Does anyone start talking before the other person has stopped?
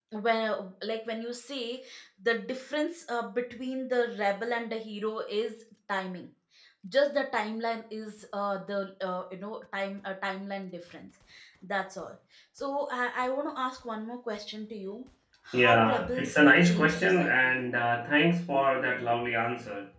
Yes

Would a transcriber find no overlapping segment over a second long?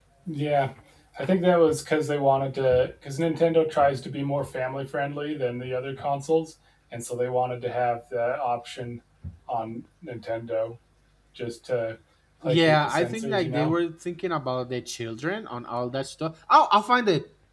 No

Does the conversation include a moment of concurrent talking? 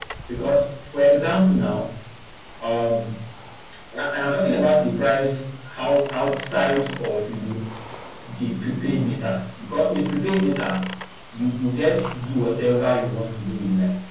No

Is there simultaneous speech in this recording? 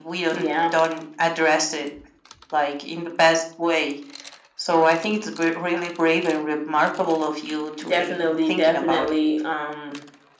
Yes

